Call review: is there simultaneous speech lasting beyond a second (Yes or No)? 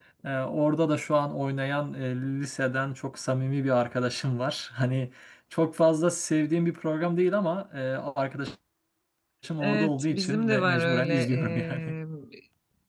Yes